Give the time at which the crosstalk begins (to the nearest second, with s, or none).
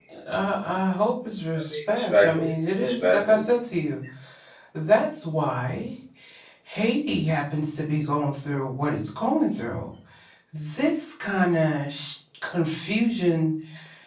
2 s